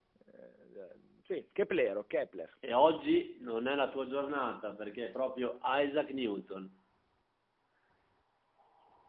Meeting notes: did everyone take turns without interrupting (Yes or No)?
Yes